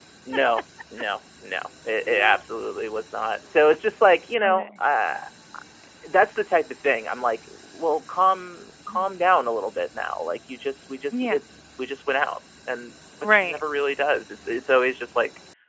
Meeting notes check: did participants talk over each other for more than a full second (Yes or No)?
No